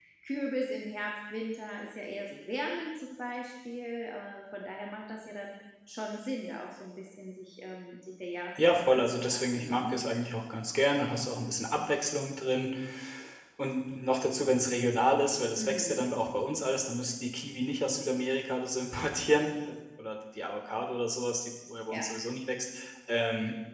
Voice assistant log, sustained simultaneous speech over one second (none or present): present